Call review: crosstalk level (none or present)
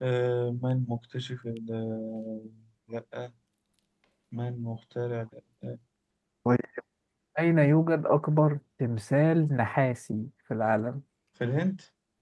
none